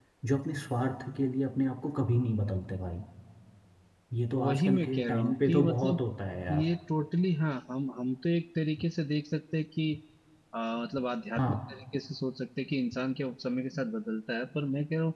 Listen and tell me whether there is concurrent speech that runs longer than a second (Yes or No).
Yes